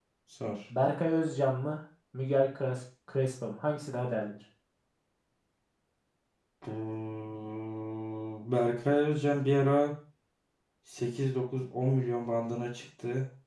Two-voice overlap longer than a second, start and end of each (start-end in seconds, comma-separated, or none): none